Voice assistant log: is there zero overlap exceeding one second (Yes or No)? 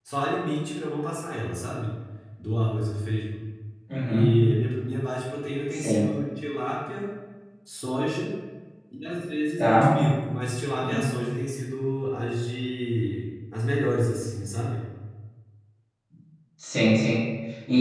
Yes